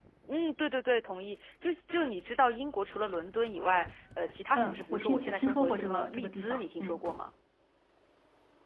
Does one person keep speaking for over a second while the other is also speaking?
Yes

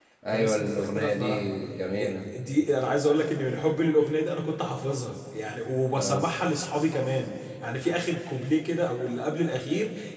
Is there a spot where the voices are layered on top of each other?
Yes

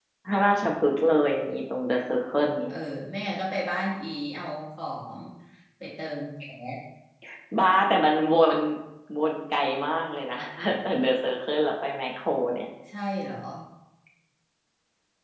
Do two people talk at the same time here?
No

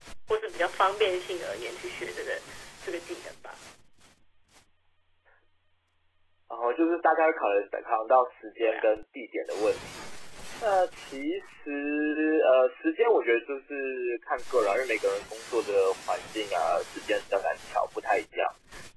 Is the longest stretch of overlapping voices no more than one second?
Yes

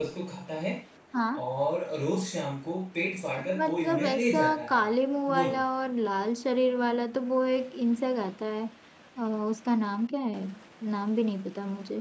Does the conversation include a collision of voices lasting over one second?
Yes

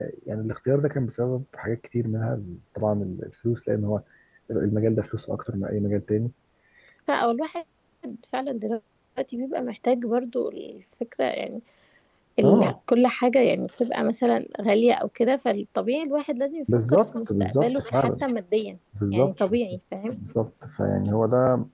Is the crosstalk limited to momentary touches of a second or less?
No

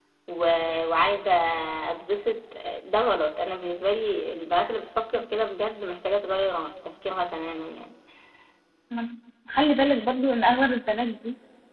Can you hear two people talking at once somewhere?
No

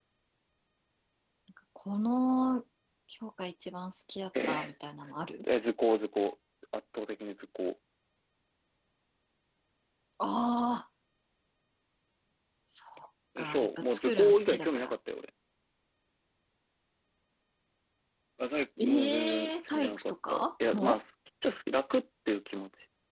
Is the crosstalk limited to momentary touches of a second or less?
No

